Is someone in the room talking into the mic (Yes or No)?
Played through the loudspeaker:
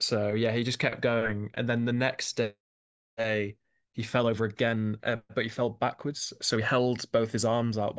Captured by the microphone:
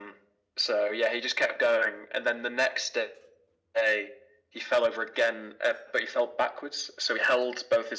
No